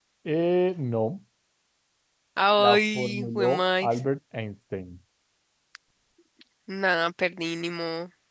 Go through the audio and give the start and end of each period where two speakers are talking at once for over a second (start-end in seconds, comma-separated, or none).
2.6-4.0